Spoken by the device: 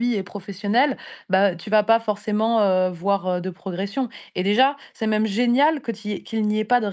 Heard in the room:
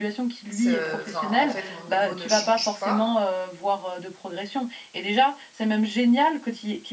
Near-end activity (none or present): present